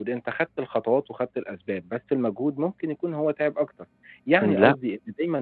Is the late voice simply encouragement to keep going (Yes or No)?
Yes